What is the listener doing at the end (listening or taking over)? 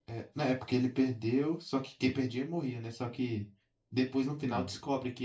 listening